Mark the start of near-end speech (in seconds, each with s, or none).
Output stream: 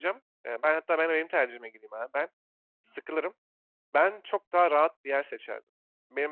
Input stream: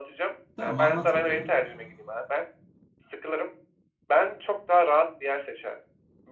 0.6 s